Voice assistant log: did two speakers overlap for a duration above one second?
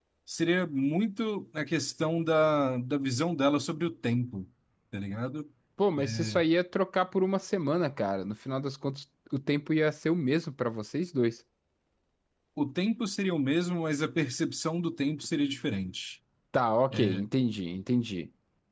No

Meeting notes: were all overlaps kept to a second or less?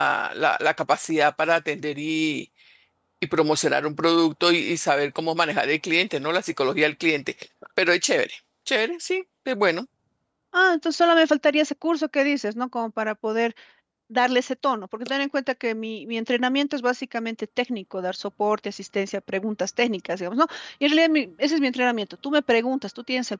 Yes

